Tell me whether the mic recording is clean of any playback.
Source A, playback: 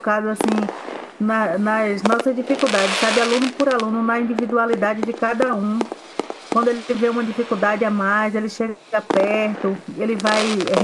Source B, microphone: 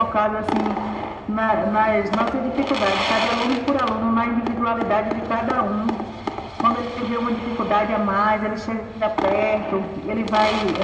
No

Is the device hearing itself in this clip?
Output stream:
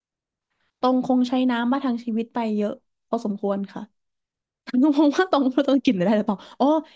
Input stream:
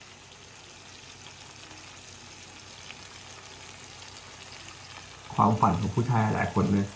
No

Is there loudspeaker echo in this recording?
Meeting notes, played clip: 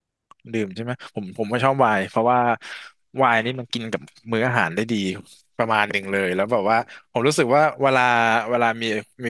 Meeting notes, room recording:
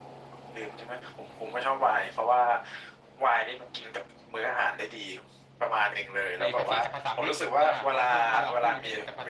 Yes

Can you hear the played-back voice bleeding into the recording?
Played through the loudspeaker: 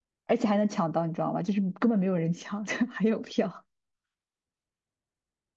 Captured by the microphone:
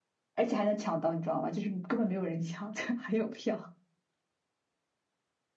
Yes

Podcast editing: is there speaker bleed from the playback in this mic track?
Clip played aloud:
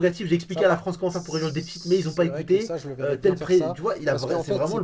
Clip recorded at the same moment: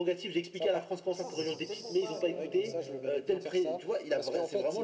Yes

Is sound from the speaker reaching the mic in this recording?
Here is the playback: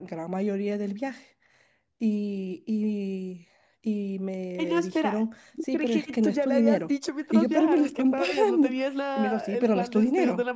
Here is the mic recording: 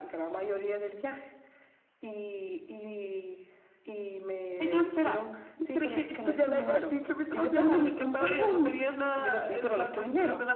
Yes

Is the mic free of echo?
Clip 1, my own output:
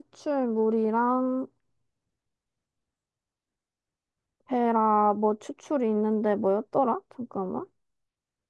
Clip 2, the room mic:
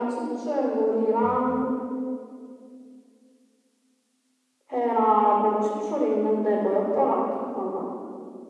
No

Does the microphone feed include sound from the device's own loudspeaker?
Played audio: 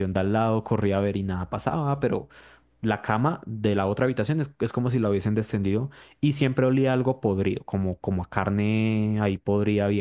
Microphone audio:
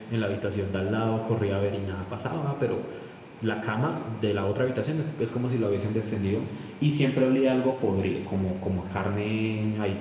Yes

